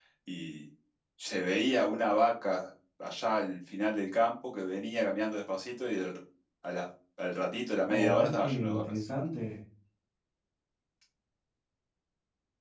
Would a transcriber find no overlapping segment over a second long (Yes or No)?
No